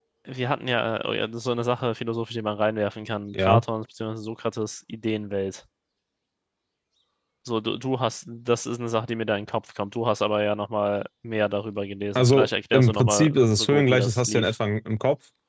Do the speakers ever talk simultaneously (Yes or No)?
Yes